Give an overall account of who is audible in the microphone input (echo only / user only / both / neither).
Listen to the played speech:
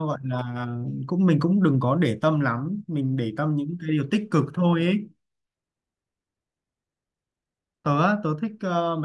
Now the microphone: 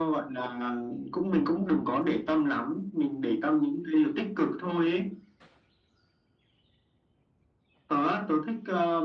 echo only